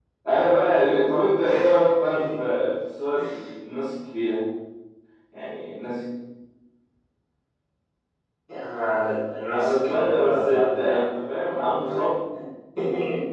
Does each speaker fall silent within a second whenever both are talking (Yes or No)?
No